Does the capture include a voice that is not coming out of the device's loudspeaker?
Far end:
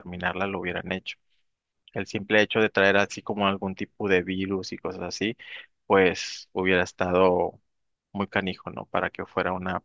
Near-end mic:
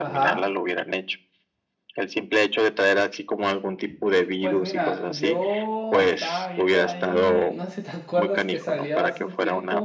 Yes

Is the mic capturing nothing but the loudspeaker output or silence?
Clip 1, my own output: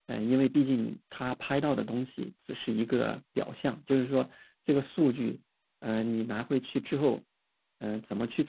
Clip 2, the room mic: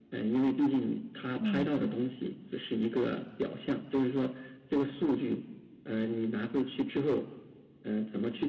No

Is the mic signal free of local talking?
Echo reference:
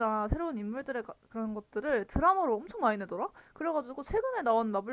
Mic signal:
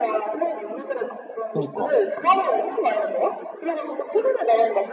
No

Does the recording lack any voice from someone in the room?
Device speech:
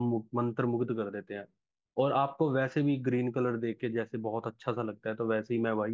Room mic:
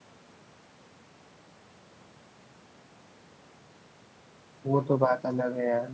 No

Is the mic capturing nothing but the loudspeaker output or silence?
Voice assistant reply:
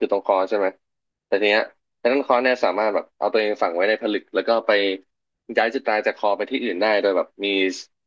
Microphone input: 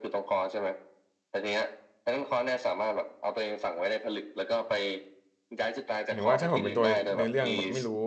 No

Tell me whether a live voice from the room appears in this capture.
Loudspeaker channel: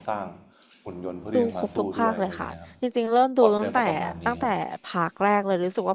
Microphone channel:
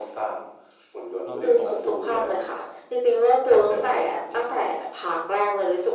Yes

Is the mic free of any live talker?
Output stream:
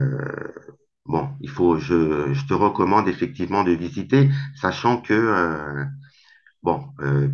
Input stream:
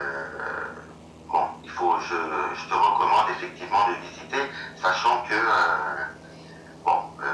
Yes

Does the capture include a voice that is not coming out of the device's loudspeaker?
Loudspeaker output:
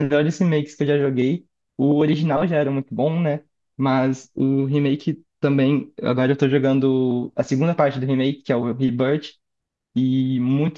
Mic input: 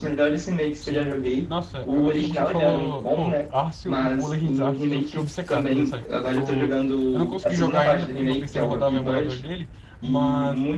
Yes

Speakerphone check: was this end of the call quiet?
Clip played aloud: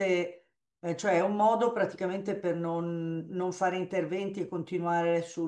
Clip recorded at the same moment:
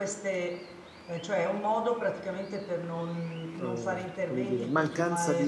No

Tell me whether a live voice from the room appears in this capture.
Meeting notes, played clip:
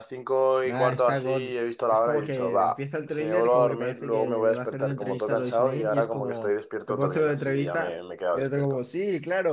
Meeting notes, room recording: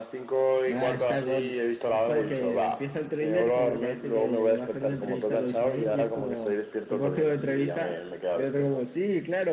No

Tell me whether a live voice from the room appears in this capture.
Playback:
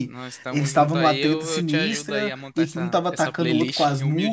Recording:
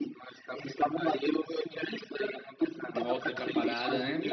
Yes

